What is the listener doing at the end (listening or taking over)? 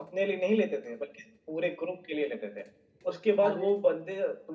listening